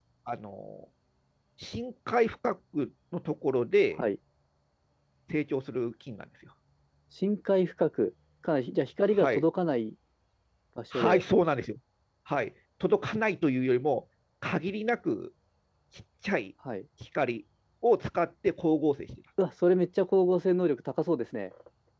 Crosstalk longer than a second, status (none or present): none